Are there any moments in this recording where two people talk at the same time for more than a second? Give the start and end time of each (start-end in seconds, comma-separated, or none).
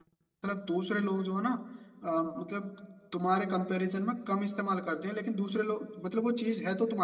none